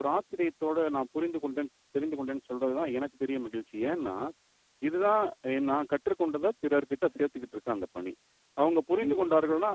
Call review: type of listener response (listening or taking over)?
listening